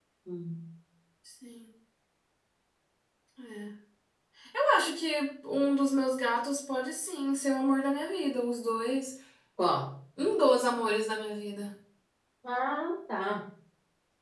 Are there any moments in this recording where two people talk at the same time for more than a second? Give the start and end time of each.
none

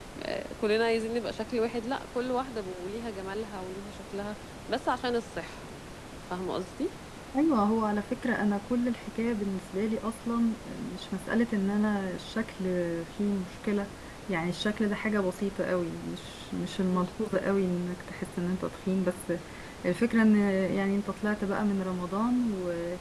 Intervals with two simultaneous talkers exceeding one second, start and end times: none

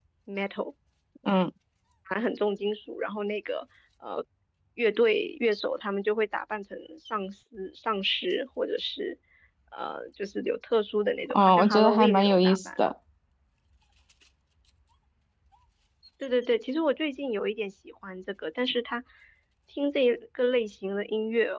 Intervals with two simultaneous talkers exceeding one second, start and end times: 11.3-12.6

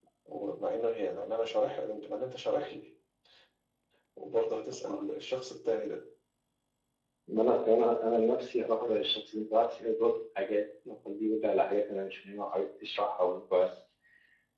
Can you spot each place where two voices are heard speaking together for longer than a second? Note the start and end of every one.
none

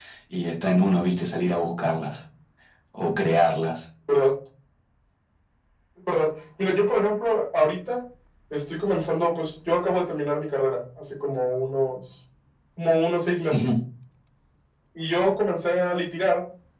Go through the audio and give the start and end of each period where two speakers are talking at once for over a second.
none

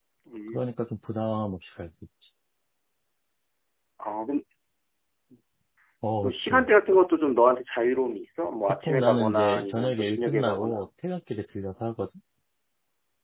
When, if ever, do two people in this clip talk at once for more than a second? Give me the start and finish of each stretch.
8.7-10.8

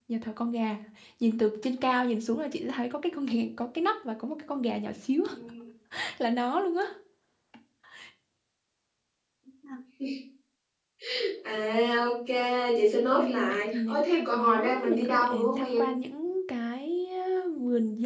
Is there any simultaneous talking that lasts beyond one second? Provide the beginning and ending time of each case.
13.0-15.8

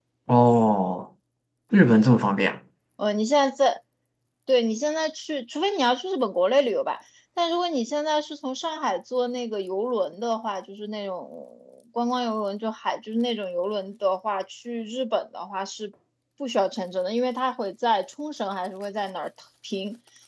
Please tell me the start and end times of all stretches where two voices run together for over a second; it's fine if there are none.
none

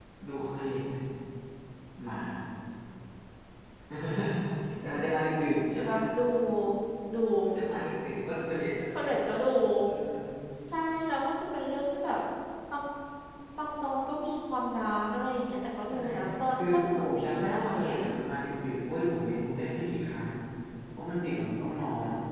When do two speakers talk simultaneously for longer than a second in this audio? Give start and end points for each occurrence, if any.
16.6-18.0

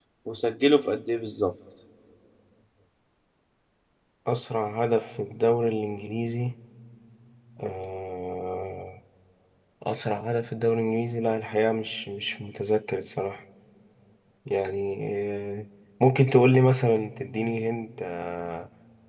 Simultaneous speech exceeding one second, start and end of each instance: none

